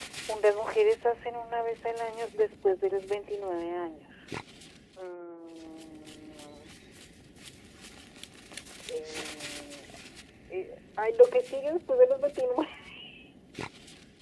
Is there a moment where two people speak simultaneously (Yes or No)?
No